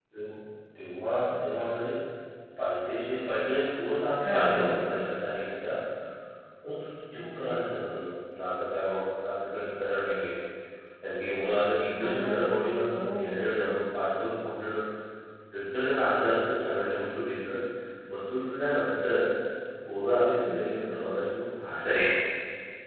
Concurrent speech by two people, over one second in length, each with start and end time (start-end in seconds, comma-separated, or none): none